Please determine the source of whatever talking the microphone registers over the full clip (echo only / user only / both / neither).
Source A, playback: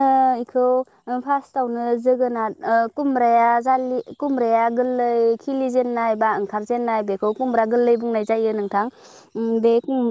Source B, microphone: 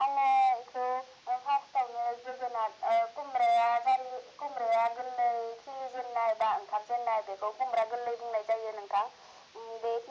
echo only